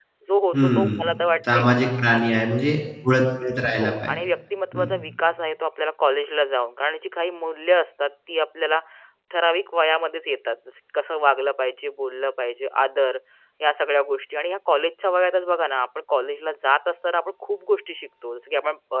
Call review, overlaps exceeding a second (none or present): none